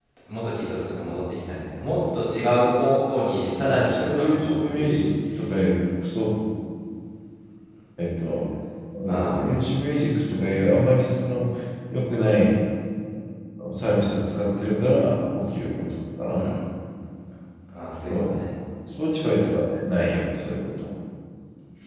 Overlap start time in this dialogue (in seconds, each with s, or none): 3.7 s